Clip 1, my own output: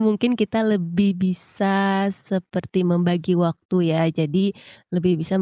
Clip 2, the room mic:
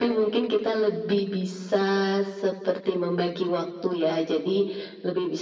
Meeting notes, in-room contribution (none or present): none